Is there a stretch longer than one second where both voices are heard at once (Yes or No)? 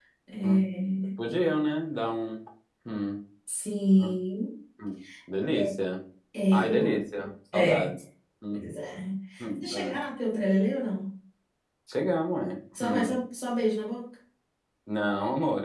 No